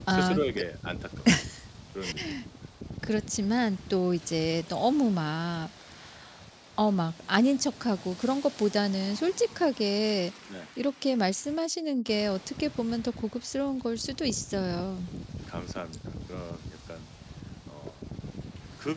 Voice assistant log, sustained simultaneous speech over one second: none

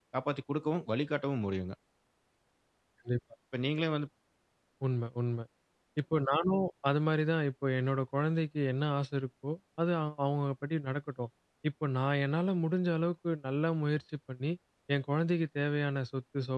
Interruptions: none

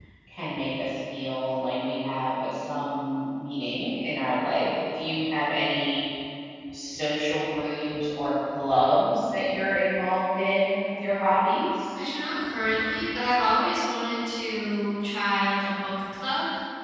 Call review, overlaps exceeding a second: none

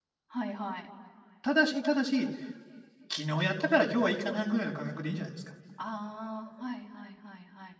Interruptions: none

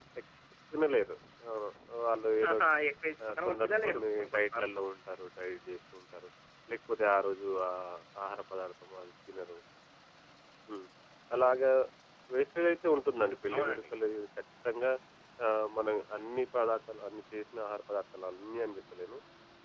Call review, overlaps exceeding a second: present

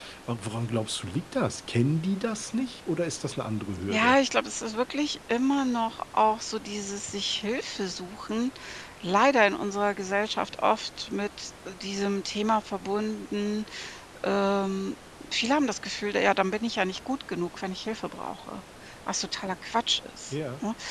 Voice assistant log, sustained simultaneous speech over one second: none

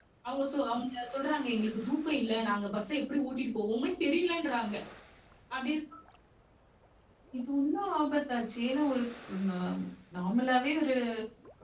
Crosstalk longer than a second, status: none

